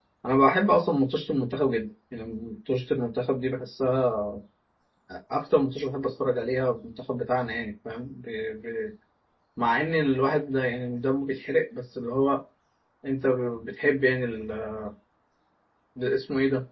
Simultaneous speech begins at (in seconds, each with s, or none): none